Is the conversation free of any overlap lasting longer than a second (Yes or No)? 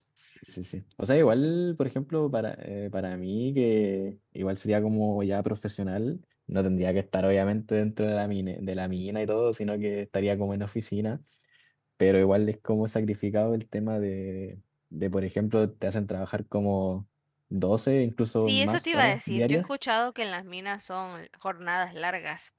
No